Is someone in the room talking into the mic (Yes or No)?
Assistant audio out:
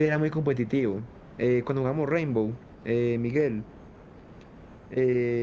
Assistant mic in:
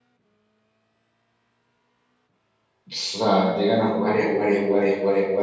Yes